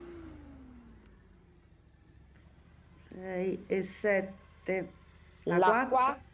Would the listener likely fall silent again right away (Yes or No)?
No